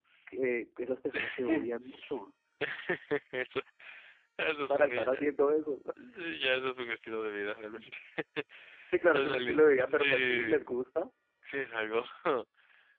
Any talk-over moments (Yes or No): Yes